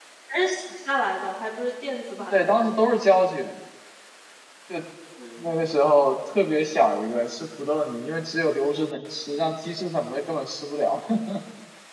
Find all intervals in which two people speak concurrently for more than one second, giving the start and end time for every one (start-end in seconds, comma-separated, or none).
none